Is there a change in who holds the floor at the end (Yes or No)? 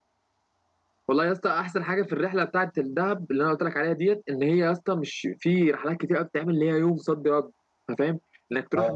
No